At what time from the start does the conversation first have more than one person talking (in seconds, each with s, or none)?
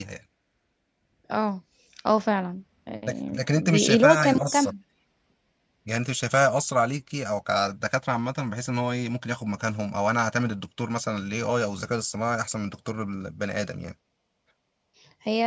3.1 s